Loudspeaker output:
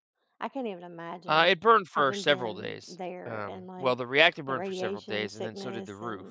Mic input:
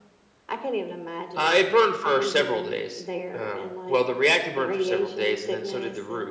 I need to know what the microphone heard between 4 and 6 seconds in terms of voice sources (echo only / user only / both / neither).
echo only